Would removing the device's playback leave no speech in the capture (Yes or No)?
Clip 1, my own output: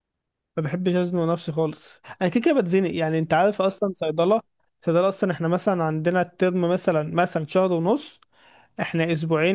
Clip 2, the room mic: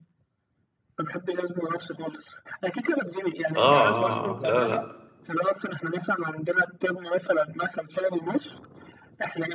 No